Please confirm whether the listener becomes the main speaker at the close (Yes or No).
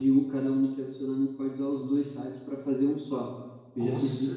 No